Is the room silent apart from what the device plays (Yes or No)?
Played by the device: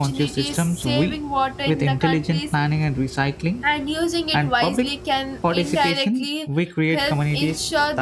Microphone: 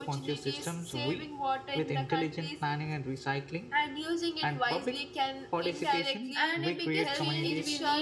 No